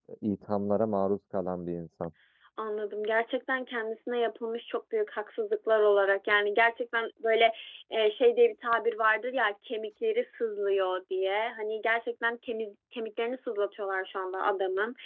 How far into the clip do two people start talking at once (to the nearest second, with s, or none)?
none